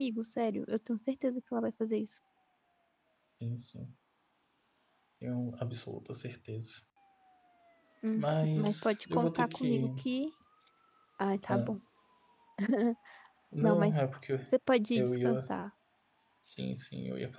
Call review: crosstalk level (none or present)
present